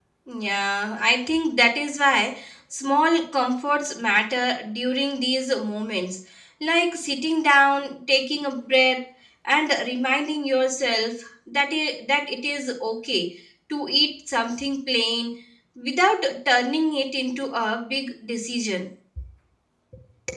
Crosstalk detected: No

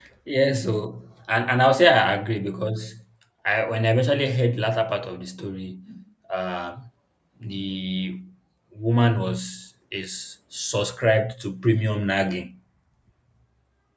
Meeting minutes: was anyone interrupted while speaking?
No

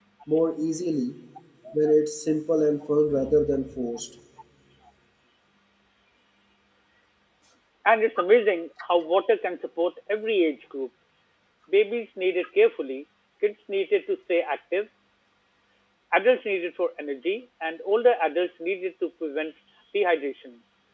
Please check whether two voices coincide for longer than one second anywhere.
No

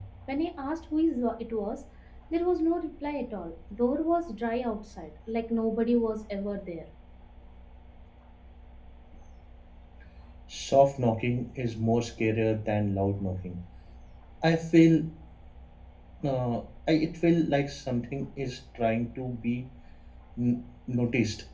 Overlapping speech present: No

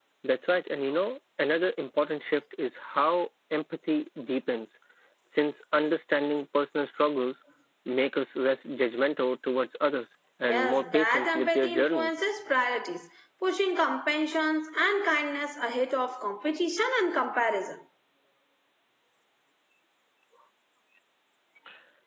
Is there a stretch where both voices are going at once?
Yes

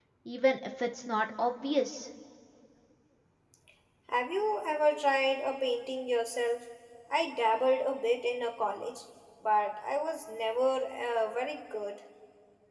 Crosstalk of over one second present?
No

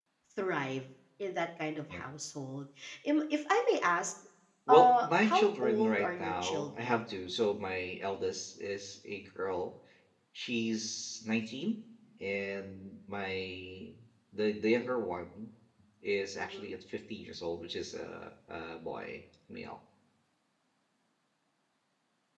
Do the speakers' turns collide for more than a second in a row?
Yes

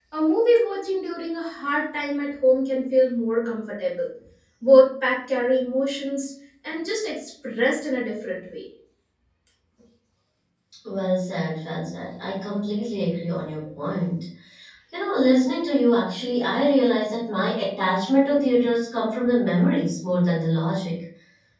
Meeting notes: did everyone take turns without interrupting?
Yes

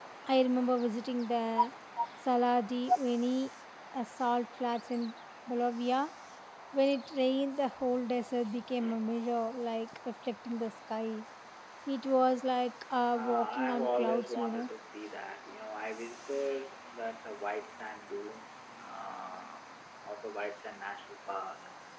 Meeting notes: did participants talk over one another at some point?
Yes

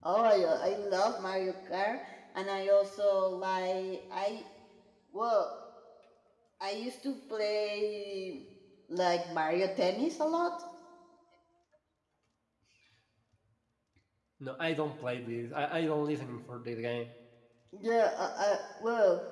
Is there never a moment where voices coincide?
Yes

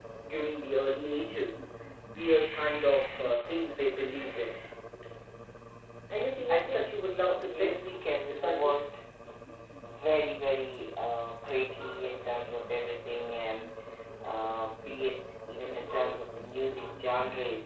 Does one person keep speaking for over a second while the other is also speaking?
Yes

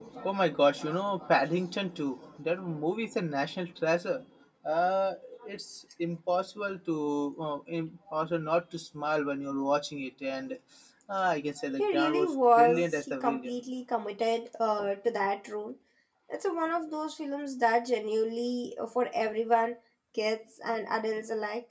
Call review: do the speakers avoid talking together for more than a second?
No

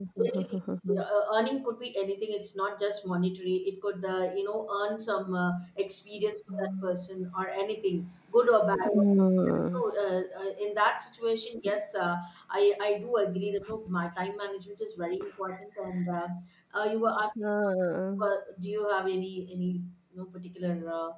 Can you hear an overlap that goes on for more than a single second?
No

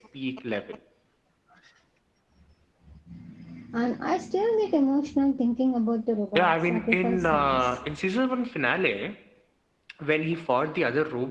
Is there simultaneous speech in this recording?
Yes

